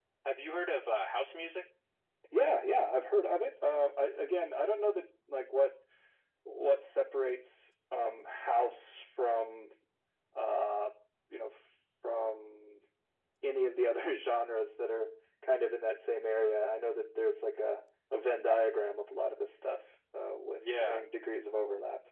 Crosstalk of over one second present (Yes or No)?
No